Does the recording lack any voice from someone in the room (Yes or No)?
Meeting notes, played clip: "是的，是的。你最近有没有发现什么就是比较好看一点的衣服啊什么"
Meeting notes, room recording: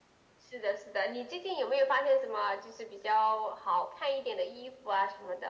Yes